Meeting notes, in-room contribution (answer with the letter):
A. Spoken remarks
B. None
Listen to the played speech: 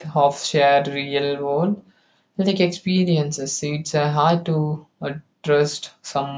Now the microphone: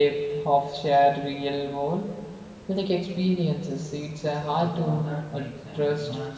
A